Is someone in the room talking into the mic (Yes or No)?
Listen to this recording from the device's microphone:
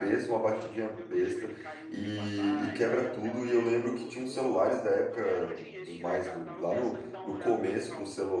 Yes